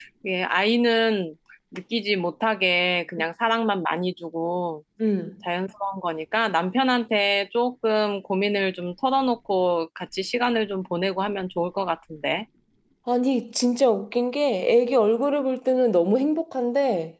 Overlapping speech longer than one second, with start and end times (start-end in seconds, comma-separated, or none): none